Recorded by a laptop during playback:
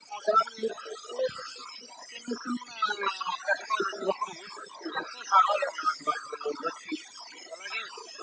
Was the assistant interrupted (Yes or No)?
No